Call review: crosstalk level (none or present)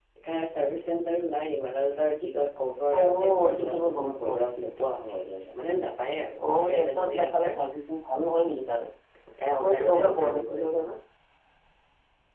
present